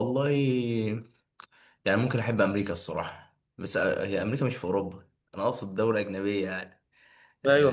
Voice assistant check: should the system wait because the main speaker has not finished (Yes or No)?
No